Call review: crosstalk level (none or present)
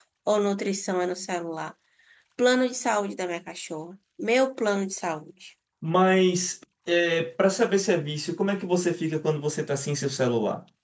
none